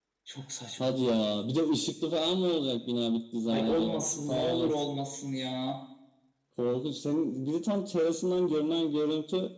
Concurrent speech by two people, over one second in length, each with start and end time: 3.5-4.7

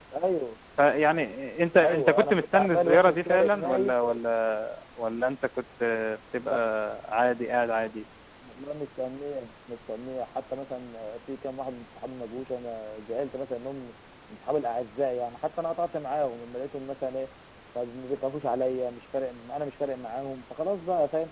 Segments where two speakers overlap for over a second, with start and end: 1.8-4.2

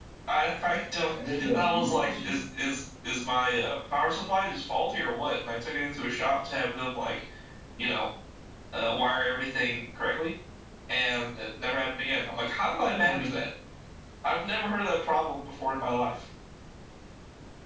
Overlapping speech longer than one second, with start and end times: 1.0-2.4

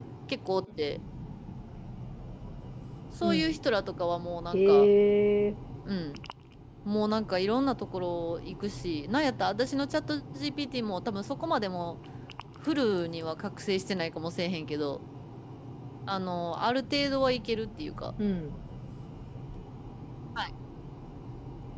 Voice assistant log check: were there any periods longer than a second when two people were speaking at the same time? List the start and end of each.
none

